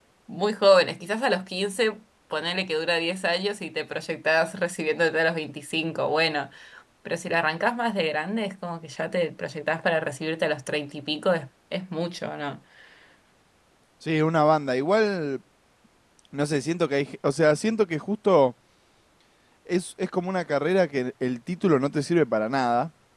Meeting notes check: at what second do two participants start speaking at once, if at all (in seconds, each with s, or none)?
none